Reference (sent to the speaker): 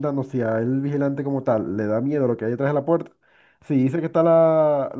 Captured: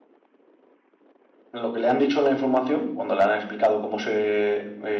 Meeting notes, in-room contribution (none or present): present